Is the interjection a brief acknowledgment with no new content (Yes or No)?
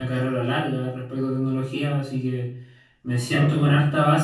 Yes